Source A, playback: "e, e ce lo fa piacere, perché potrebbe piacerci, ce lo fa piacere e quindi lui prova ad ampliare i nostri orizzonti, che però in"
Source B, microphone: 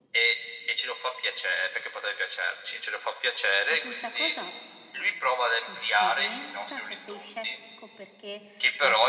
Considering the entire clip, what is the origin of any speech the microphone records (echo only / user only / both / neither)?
both